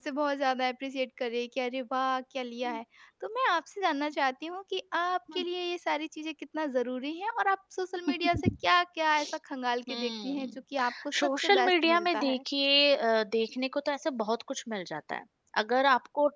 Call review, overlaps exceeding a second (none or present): present